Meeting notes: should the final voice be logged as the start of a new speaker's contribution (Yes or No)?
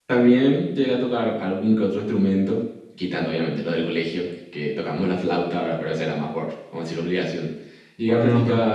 No